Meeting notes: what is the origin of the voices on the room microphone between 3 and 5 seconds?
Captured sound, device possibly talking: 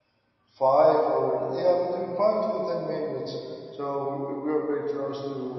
user only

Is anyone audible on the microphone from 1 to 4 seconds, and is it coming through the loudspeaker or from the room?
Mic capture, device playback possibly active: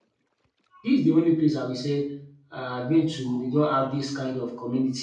user only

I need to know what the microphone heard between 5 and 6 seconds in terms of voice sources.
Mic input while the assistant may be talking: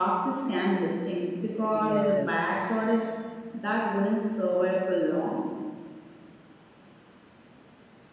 echo only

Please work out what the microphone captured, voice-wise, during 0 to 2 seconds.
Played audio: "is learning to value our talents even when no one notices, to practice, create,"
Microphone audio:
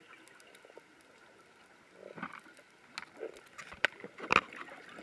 neither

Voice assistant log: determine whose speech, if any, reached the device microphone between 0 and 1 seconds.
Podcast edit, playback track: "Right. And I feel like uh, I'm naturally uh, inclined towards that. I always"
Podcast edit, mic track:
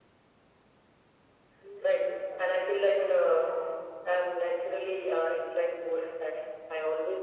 neither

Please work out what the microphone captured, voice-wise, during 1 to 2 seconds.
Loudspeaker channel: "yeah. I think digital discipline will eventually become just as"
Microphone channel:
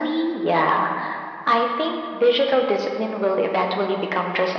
echo only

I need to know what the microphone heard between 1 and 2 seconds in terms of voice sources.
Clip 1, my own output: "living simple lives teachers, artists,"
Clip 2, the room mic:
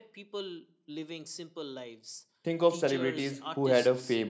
echo only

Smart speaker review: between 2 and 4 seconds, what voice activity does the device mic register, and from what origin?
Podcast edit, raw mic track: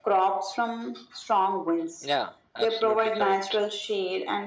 echo only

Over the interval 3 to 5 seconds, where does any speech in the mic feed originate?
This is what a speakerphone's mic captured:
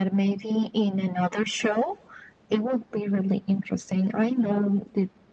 echo only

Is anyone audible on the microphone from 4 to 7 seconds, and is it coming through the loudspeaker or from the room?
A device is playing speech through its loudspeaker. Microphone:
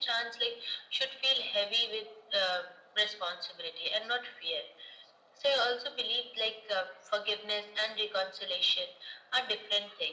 echo only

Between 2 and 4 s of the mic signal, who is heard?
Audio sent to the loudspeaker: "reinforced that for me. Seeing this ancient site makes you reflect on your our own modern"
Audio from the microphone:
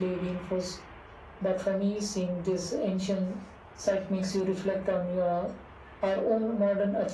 echo only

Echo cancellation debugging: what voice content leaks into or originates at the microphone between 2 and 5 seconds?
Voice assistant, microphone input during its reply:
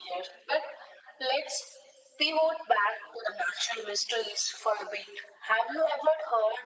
echo only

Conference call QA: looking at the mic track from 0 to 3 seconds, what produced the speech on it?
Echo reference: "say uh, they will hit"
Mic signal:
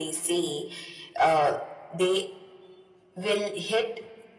echo only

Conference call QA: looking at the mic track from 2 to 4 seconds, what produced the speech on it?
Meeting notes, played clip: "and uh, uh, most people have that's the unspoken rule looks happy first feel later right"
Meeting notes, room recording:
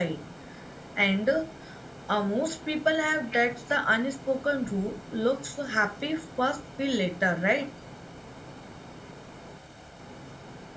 echo only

